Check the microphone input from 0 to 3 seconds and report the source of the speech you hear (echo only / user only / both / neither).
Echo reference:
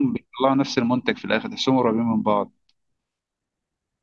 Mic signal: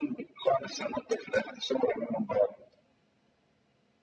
echo only